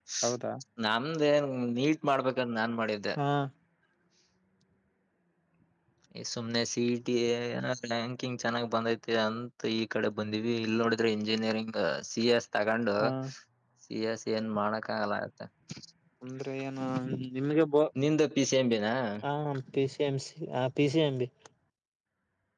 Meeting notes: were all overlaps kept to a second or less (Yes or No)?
Yes